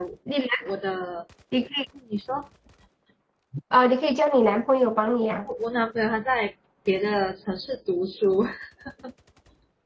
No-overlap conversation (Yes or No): Yes